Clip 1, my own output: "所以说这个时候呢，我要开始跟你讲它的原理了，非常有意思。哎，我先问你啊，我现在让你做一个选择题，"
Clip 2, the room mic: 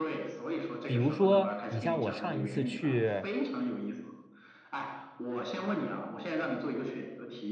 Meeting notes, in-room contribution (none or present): present